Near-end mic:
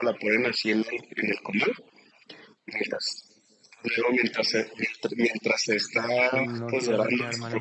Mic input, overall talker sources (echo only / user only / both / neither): both